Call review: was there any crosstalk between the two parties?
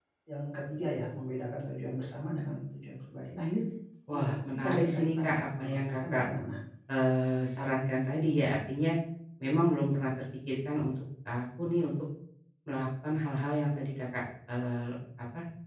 Yes, from 4.1 s

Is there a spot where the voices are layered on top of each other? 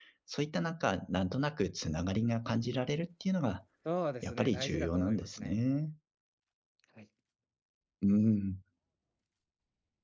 Yes, from 4.2 s

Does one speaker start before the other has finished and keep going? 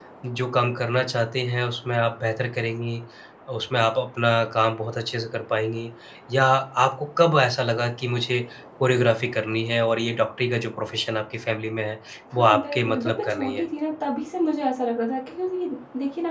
Yes, from 12.4 s

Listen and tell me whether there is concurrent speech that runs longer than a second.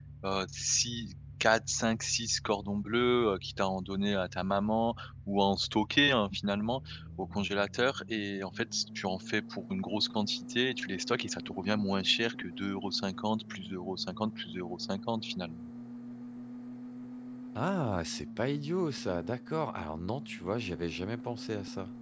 No

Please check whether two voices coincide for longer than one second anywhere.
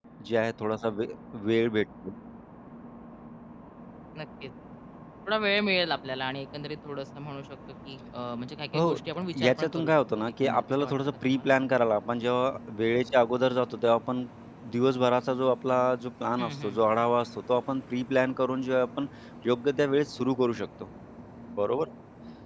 Yes, from 8.8 s

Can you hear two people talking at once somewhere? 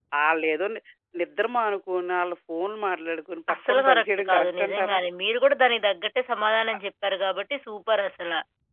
Yes, from 3.5 s

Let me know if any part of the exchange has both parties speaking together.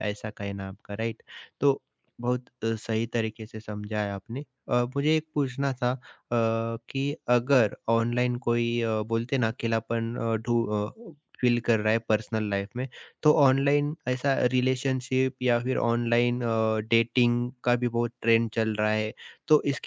No

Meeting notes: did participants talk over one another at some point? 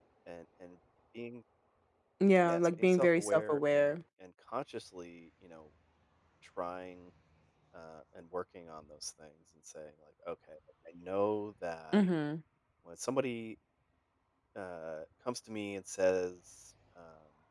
Yes, from 2.4 s

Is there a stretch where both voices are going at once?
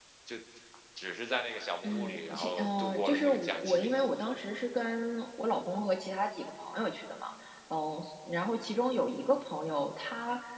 Yes, from 1.8 s

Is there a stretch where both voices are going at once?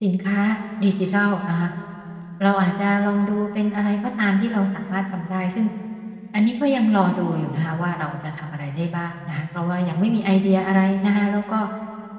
No

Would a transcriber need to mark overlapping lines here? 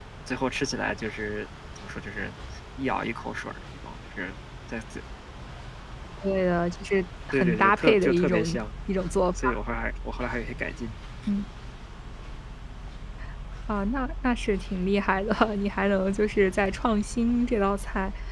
Yes, from 7.3 s

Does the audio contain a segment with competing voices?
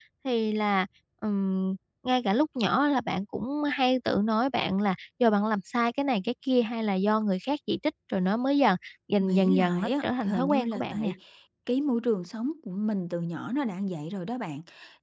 Yes, from 9.2 s

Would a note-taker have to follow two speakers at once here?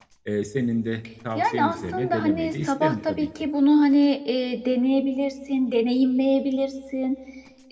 Yes, from 1.4 s

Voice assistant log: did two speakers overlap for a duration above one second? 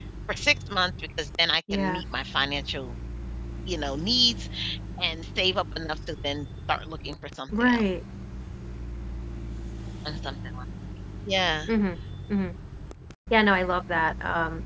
No

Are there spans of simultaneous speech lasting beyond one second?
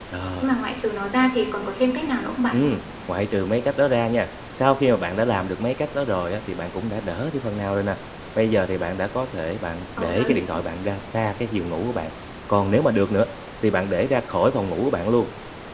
No

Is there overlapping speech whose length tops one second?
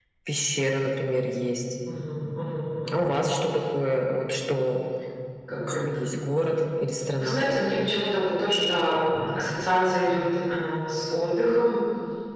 No

